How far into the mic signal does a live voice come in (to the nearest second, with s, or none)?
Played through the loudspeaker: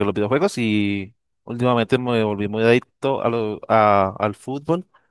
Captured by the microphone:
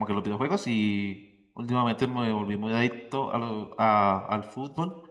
none